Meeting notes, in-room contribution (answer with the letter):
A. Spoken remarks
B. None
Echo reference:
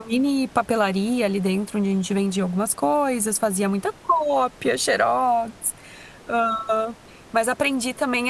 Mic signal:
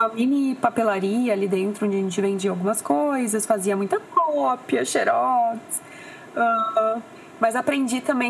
B